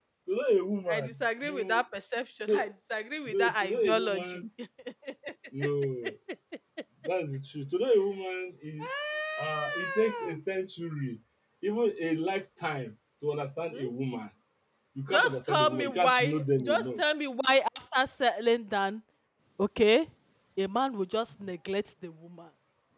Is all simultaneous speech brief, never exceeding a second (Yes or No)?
No